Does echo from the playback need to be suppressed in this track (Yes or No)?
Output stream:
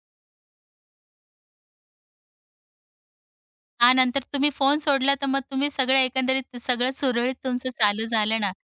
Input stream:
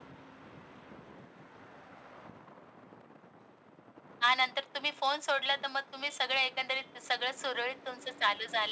Yes